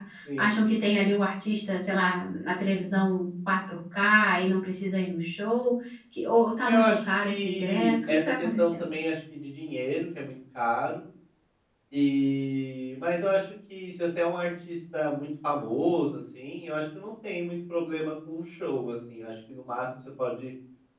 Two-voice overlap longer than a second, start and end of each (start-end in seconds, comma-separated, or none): 6.6-8.9